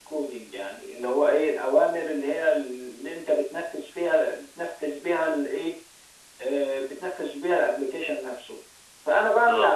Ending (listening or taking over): listening